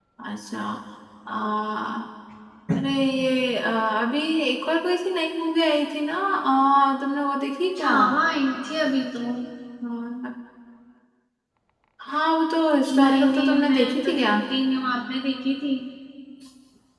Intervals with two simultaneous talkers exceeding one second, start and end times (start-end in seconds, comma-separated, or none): 13.0-14.3